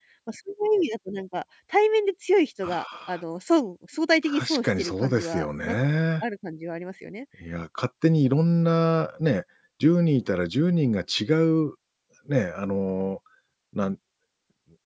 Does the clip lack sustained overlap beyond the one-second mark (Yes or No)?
No